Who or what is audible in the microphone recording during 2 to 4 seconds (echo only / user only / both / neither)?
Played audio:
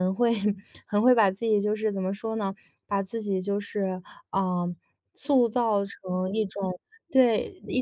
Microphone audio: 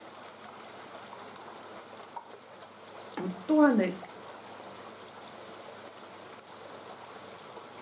user only